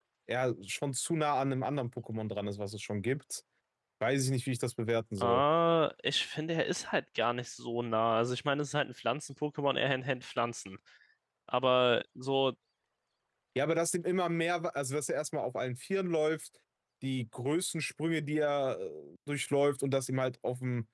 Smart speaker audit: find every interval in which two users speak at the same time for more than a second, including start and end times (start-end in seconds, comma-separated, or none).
none